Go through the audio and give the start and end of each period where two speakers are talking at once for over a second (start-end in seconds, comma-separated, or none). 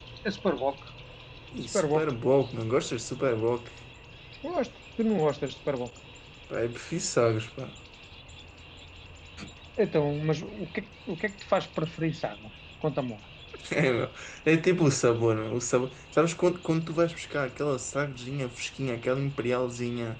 none